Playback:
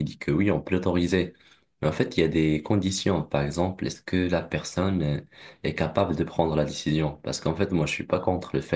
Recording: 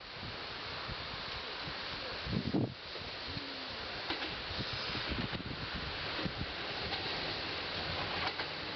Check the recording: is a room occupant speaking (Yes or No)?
No